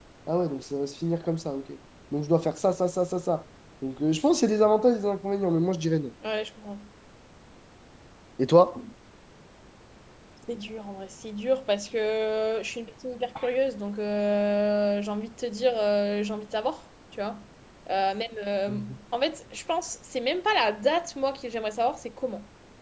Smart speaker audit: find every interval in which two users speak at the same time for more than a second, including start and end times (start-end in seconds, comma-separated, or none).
none